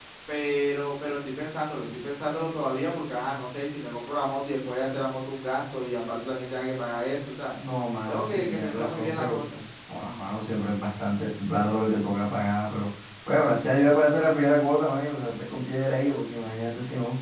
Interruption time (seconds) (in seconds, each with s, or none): 8.1 s